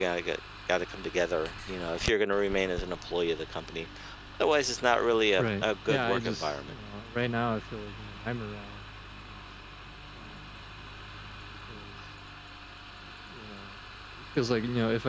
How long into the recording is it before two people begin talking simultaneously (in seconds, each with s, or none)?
5.4 s